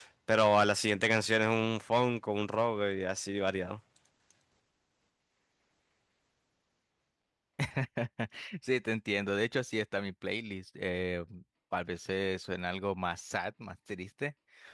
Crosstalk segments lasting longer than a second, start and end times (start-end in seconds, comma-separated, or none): none